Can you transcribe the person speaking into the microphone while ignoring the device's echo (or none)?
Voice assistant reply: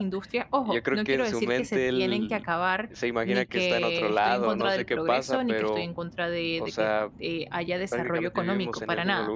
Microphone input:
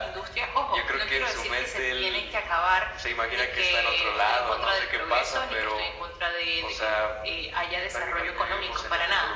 none